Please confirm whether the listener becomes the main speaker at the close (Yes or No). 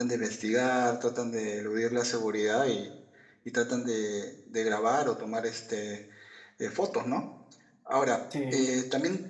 No